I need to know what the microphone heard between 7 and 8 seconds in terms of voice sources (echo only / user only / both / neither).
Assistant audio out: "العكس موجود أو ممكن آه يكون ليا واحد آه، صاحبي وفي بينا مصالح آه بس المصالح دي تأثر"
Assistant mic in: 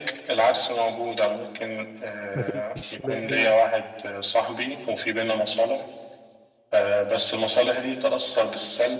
echo only